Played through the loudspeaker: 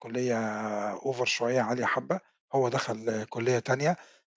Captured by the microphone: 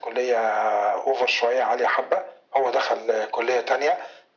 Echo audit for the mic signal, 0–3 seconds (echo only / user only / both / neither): echo only